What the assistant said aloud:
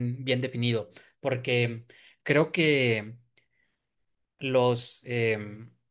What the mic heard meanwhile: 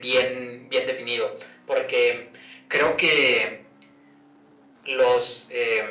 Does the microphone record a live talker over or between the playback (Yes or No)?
No